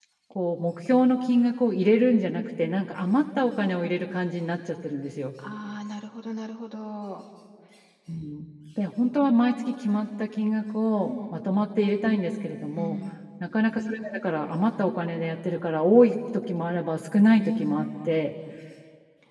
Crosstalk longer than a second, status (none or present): none